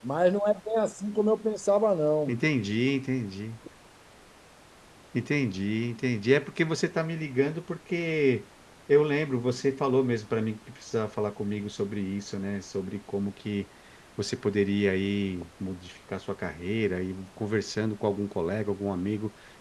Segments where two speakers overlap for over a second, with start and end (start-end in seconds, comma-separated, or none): none